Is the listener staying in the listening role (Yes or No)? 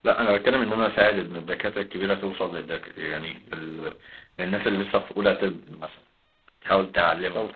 Yes